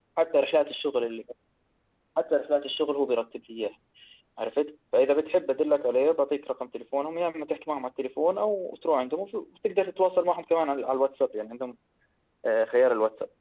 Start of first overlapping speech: none

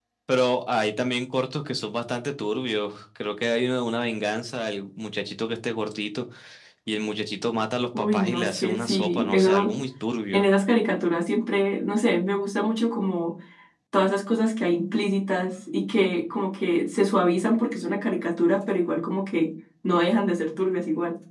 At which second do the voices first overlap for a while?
8 s

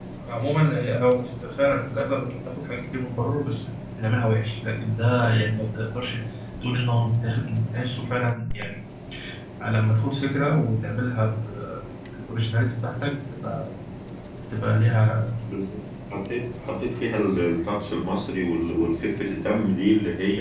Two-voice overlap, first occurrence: none

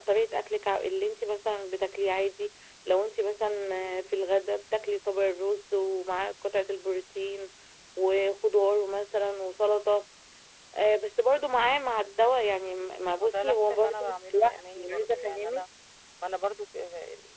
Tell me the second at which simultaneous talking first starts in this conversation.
13 s

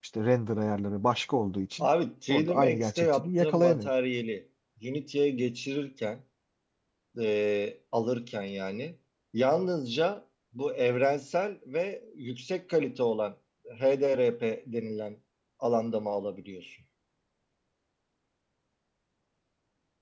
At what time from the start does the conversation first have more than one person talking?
2 s

